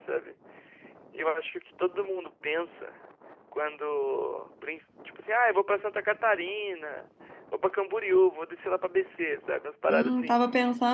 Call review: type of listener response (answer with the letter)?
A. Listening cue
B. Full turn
B